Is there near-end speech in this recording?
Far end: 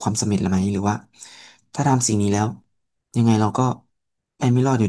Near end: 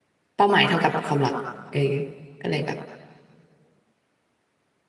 Yes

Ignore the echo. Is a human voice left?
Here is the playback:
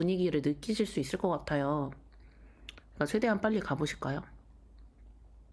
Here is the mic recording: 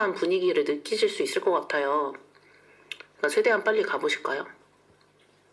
No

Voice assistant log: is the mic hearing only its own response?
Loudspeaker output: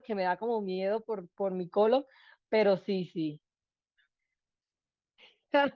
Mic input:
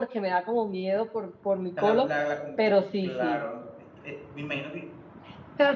No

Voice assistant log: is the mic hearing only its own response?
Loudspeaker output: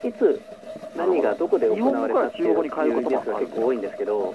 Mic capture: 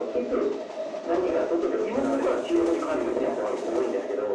Yes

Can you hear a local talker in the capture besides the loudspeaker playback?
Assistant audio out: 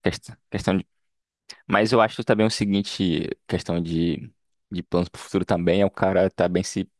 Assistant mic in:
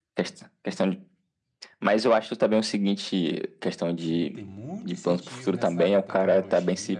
Yes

